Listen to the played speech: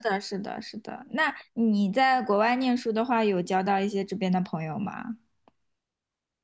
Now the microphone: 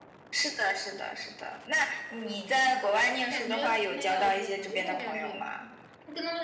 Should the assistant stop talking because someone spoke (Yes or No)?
Yes